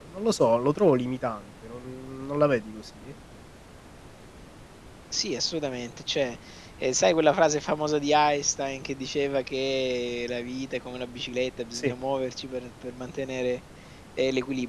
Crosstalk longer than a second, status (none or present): none